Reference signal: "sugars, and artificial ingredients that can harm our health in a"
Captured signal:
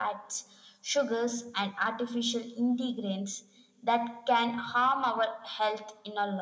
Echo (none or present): present